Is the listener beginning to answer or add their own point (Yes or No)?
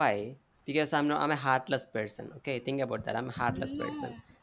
No